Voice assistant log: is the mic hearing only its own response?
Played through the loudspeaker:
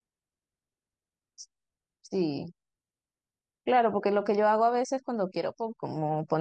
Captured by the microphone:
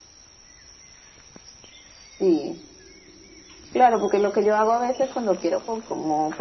Yes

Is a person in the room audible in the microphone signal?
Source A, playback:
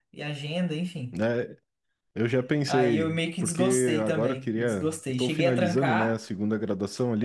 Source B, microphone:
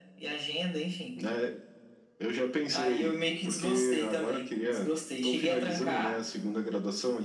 No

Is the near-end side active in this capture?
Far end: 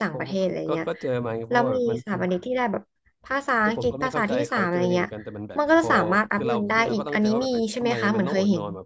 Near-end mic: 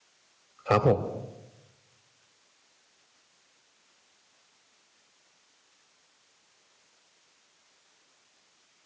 Yes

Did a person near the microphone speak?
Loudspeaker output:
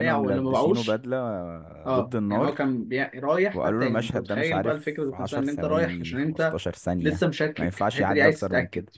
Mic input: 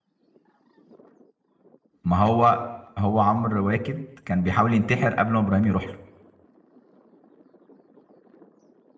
Yes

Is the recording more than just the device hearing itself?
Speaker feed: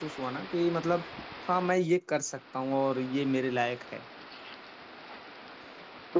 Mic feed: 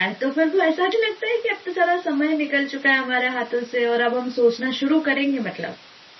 Yes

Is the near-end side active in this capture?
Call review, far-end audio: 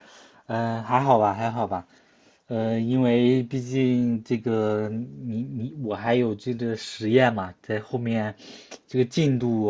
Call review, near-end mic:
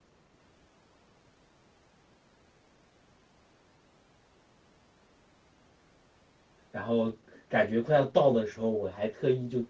Yes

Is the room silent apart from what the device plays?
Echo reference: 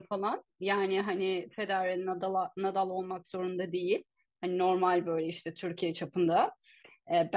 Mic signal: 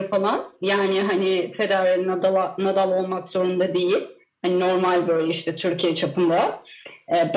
Yes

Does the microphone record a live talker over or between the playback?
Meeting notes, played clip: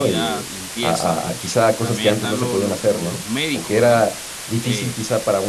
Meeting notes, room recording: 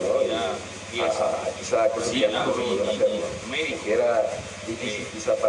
Yes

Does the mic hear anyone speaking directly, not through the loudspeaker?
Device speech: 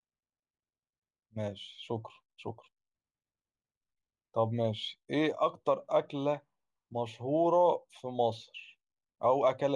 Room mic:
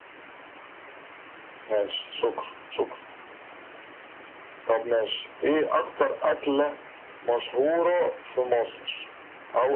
No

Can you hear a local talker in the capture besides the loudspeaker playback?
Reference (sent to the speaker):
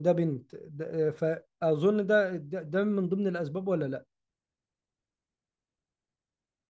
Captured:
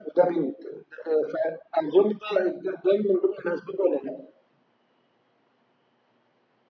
No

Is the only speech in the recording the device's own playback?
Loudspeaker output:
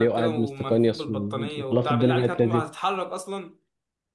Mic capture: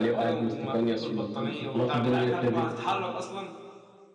Yes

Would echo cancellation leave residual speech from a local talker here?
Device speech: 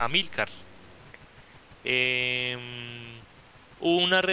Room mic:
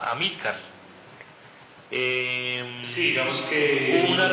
Yes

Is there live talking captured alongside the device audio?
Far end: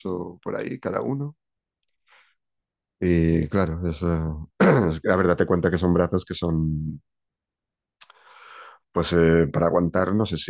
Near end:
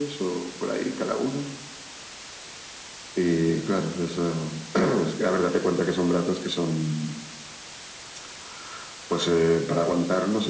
No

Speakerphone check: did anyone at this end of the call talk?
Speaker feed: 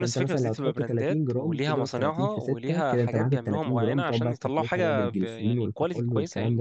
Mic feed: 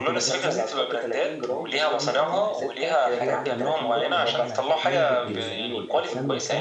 Yes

